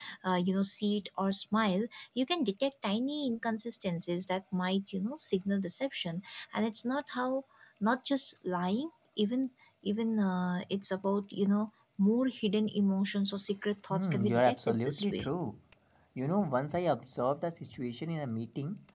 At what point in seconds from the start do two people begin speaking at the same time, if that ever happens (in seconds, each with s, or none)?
13.9 s